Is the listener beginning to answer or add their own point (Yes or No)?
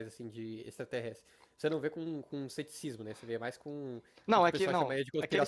Yes